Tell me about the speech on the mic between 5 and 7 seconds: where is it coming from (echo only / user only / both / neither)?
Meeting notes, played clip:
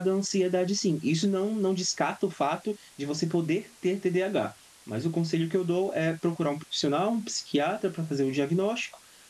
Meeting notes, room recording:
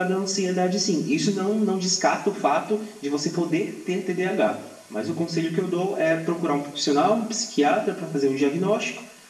echo only